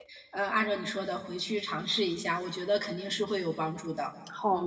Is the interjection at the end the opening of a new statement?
Yes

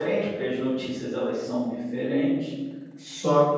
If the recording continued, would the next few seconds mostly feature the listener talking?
No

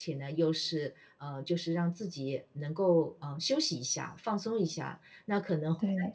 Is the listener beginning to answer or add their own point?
No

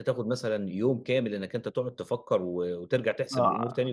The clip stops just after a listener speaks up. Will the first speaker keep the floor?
No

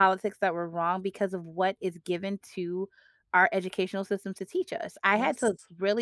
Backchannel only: Yes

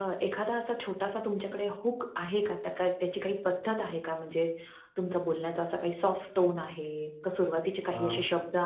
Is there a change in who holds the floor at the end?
No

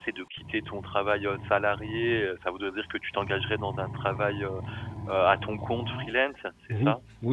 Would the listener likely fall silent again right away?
No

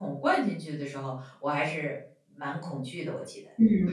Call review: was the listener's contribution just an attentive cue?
No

